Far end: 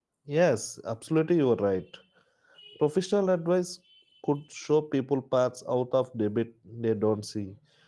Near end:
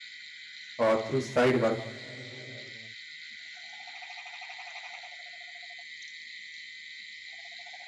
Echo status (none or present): none